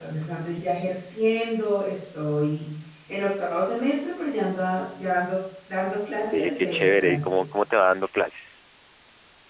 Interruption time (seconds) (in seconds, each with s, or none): 6.2 s